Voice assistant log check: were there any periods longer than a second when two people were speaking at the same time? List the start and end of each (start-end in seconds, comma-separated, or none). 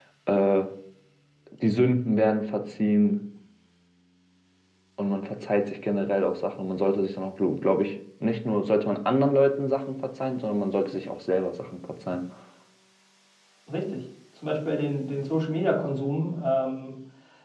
none